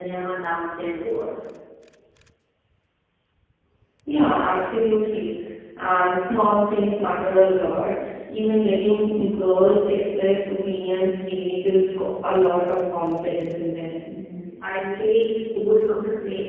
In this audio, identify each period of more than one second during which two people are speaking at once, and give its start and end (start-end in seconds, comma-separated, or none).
none